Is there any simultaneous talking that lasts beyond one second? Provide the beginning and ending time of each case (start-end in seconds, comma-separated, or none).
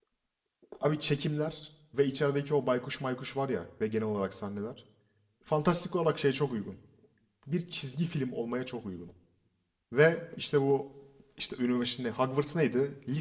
none